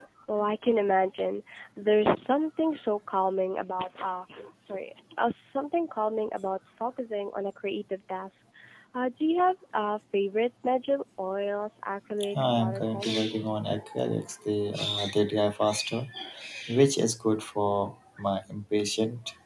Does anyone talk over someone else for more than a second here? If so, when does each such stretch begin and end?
12.3-13.6

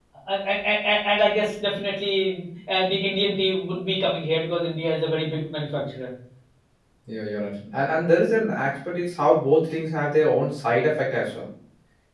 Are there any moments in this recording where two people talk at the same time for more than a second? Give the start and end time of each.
none

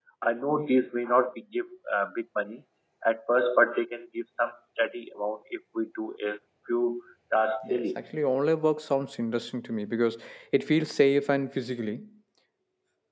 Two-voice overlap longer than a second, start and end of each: none

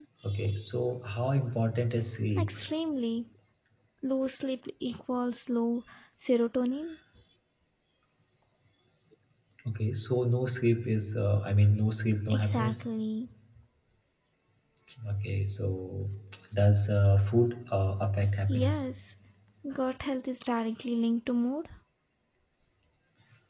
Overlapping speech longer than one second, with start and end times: none

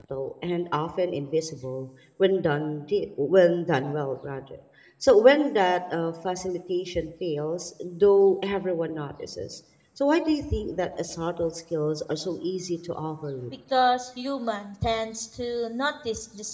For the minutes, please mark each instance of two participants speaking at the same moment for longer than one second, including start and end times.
none

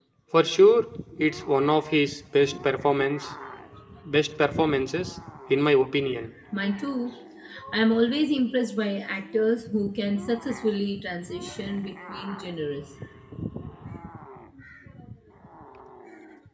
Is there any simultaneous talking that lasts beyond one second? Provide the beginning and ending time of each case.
none

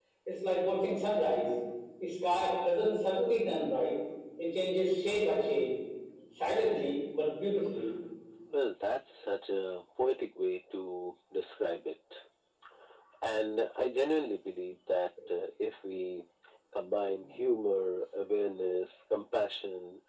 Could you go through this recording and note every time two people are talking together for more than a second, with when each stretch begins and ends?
none

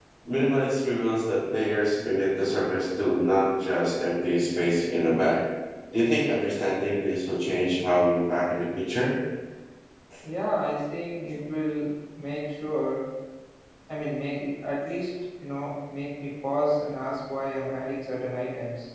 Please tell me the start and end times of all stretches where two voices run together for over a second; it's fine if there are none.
none

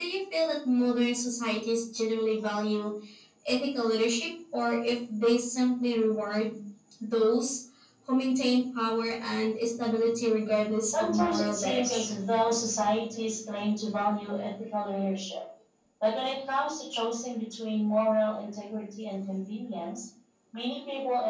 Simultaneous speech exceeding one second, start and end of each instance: 10.8-12.2

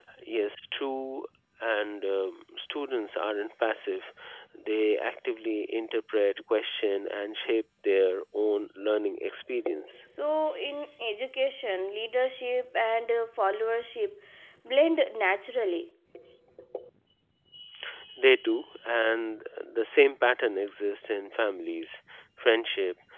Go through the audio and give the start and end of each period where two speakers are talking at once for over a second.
none

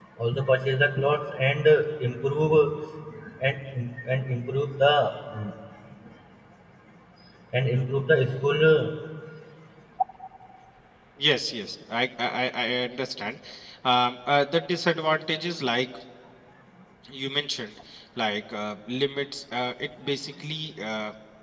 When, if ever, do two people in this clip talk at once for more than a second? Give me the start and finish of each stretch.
none

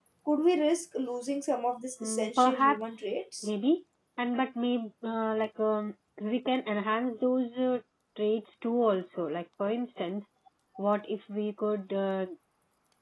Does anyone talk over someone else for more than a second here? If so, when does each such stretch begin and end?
2.0-3.5

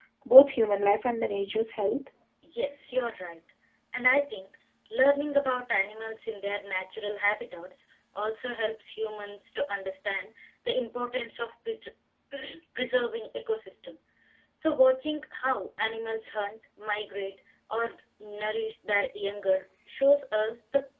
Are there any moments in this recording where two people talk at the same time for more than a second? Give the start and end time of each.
none

